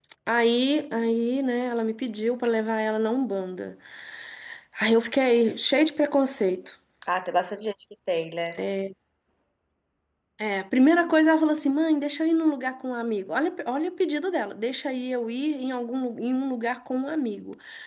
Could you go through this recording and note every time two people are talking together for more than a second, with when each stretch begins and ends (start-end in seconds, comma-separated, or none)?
none